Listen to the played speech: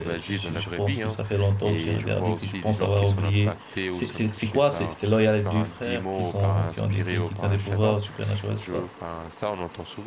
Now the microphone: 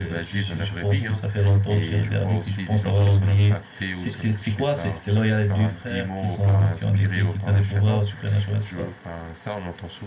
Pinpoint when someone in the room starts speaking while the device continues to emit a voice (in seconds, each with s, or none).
none